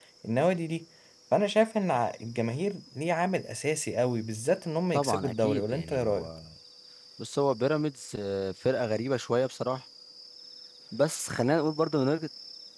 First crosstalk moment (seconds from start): 4.9 s

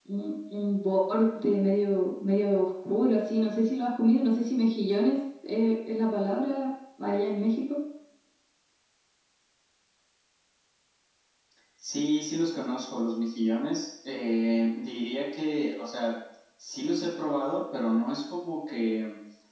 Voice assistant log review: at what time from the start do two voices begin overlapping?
none

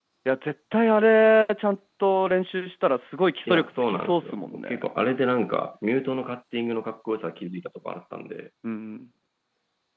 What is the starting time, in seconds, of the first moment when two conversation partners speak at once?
3.5 s

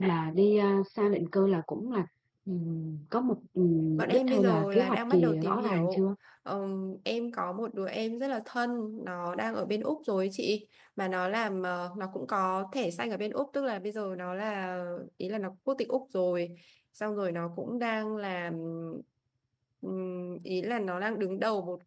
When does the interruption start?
4.0 s

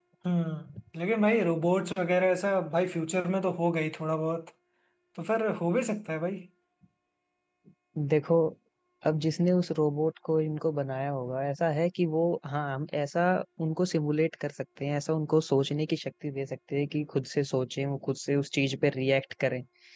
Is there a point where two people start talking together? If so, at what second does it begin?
none

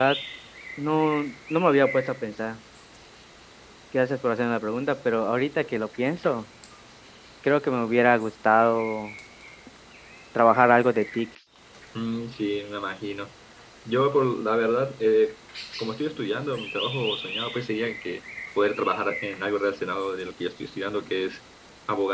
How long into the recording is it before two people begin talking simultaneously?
none

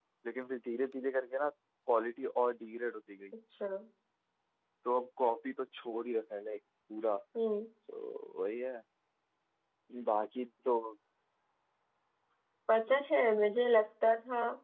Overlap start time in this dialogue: none

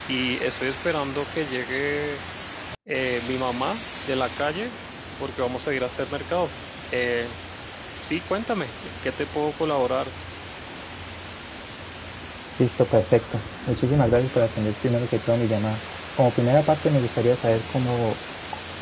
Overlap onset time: none

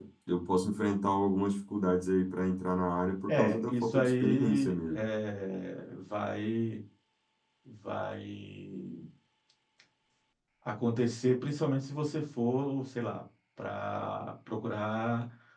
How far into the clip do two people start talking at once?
3.3 s

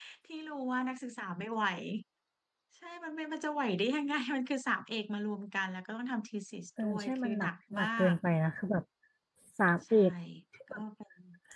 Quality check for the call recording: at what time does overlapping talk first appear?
6.8 s

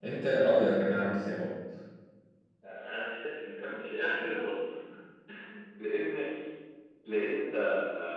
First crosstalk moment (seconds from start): none

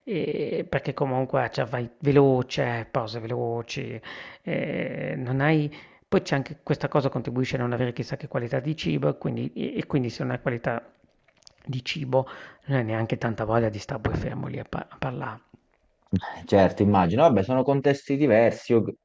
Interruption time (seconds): none

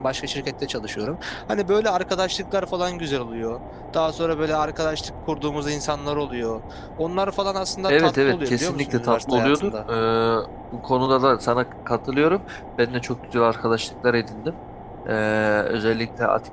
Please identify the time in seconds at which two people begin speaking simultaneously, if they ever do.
7.9 s

